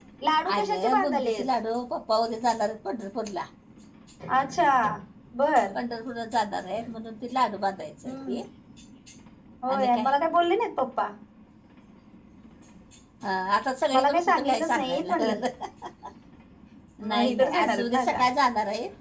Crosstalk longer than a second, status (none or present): present